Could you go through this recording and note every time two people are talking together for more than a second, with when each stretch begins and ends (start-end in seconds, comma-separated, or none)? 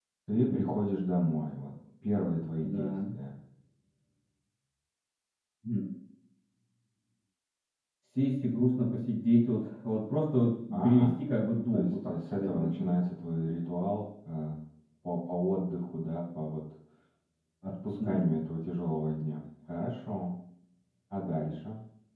11.7-13.0